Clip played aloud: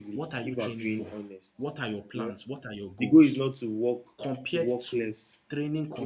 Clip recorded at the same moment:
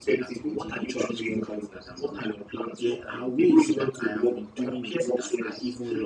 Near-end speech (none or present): present